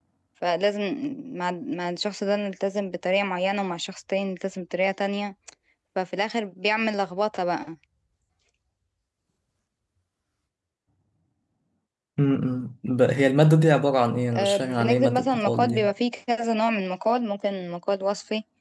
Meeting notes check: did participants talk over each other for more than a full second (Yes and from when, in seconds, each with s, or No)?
Yes, from 14.3 s